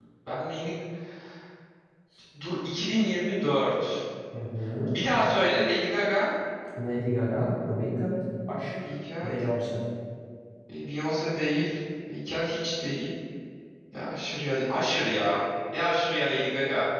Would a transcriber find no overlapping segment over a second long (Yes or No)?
Yes